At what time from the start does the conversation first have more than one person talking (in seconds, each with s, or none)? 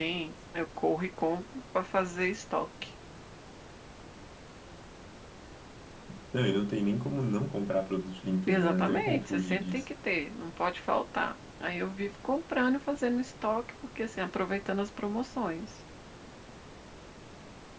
8.5 s